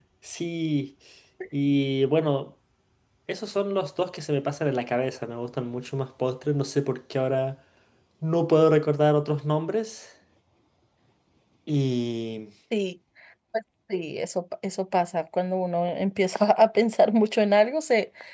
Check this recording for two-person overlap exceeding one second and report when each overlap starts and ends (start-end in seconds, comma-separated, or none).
none